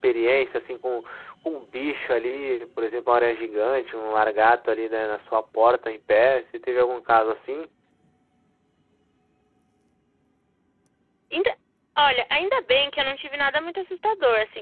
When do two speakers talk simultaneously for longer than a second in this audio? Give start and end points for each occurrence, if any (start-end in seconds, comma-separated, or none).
none